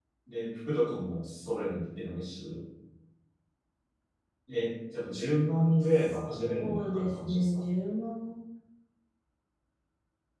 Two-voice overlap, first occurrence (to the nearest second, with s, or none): 6 s